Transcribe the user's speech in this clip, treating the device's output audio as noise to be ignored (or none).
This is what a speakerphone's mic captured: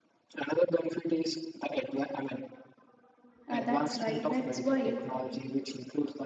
uh, that's right that's why